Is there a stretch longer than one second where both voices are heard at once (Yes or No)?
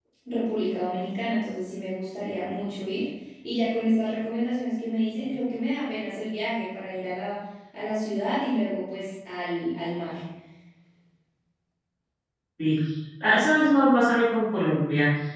No